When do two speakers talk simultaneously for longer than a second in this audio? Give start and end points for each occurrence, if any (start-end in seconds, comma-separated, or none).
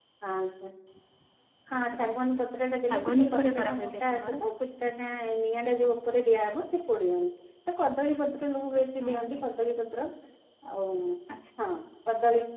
2.9-4.4